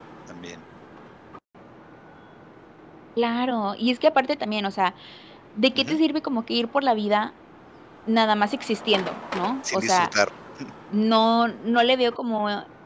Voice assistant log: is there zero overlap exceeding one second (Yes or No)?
Yes